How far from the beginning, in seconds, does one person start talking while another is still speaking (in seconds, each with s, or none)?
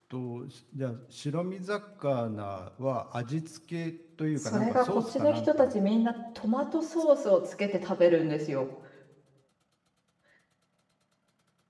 4.4 s